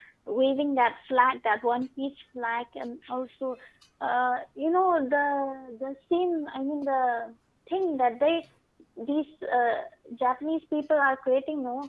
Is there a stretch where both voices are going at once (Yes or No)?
No